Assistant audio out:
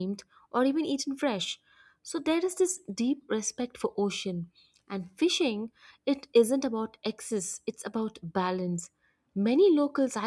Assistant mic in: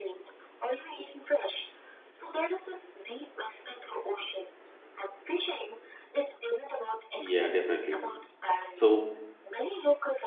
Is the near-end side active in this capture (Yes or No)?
Yes